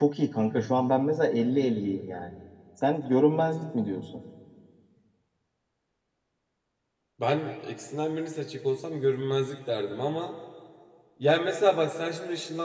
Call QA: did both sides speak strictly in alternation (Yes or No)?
Yes